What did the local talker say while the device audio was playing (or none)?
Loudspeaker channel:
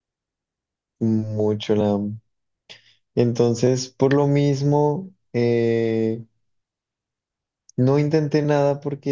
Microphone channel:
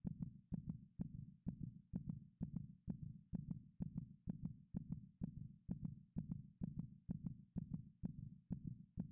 none